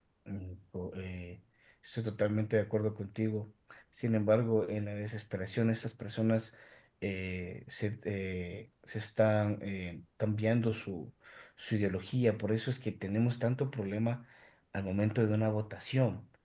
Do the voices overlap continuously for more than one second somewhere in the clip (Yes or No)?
No